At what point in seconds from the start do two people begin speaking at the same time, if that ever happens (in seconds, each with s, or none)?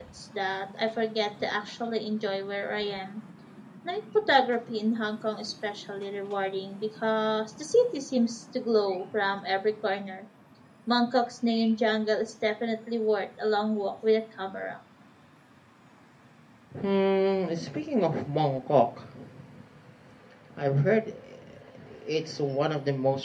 none